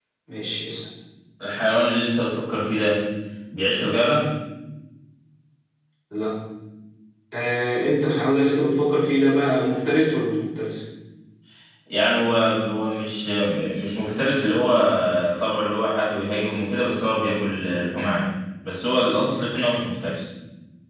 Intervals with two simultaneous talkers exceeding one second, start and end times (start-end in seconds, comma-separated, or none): none